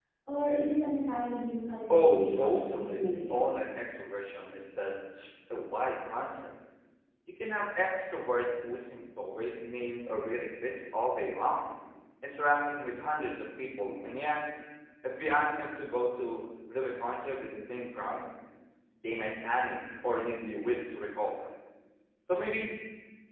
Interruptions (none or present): present